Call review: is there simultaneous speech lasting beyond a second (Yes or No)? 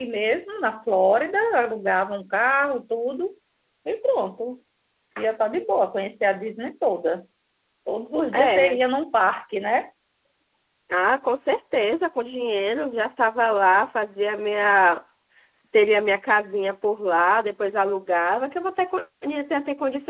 No